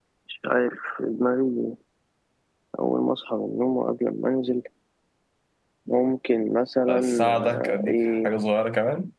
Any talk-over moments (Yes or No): Yes